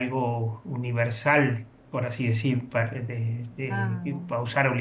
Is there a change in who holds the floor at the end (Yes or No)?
No